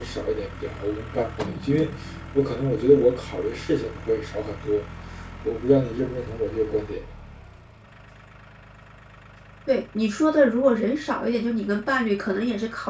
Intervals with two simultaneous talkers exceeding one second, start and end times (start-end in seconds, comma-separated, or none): none